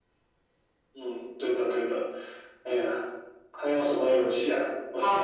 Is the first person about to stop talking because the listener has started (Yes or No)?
Yes